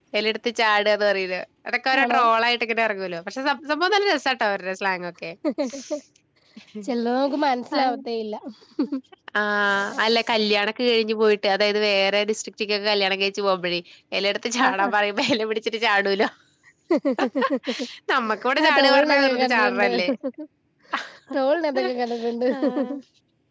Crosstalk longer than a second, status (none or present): present